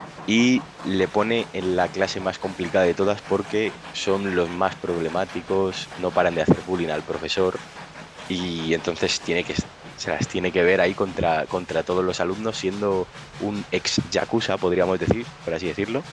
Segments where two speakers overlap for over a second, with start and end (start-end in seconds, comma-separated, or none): none